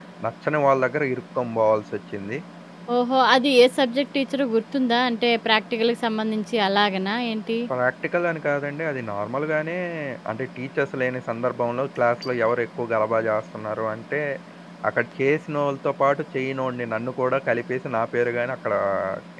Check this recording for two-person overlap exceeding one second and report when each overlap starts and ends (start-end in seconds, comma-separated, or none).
none